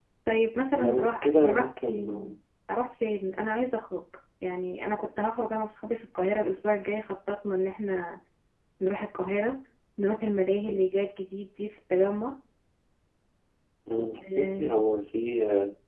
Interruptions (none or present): present